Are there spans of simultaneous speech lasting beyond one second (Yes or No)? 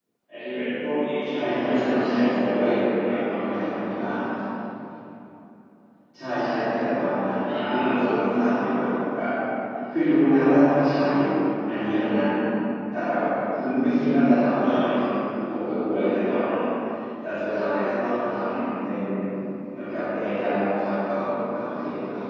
Yes